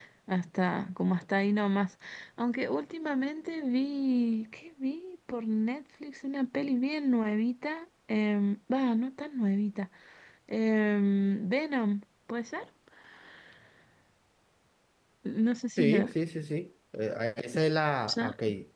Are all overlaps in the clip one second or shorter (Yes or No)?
Yes